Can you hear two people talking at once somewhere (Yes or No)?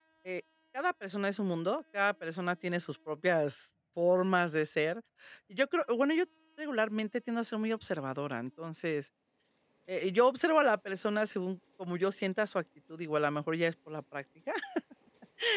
No